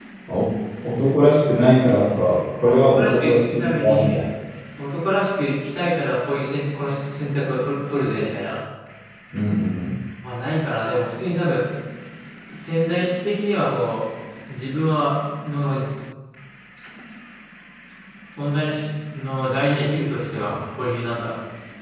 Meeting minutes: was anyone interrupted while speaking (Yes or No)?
Yes